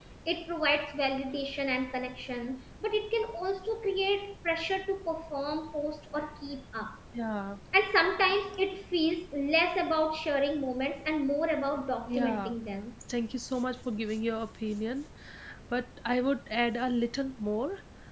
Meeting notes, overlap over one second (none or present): none